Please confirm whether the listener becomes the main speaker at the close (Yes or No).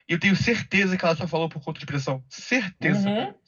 Yes